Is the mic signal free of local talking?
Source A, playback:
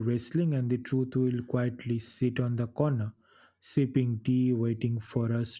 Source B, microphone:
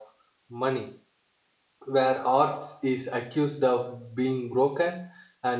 No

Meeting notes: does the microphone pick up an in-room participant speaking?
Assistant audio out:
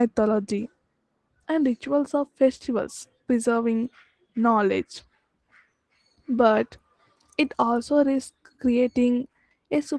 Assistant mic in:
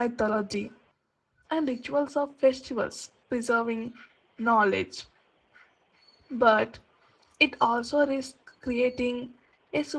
No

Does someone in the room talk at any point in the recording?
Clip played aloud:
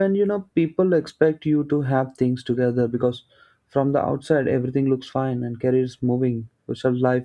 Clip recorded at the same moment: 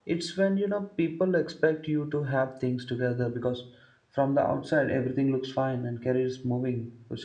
No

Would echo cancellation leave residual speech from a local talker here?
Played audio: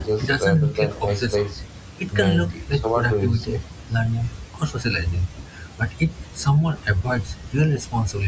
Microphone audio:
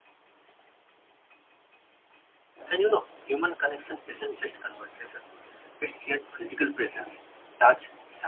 Yes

